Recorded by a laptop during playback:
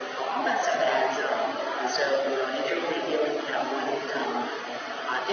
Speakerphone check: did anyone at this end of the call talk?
No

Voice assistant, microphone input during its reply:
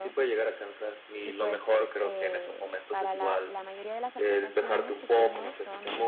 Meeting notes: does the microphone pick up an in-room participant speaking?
Yes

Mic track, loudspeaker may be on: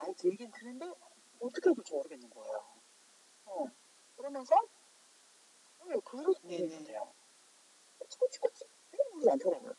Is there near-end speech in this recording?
Yes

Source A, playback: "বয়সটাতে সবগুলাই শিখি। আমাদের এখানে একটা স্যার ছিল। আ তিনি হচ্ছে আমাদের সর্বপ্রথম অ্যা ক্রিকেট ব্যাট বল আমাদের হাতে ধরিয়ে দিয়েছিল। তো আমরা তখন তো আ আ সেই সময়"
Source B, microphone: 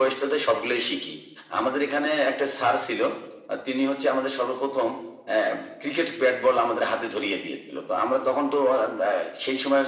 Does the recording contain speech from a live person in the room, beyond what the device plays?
No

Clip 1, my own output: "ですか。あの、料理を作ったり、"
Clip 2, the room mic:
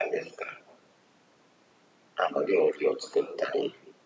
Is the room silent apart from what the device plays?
Yes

